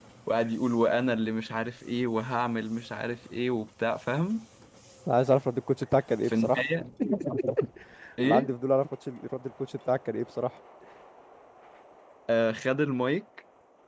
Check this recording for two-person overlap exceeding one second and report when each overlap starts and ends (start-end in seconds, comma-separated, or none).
none